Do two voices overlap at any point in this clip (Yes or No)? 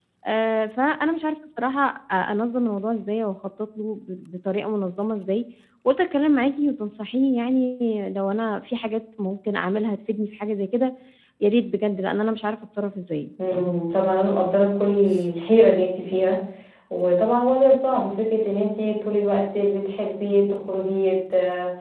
No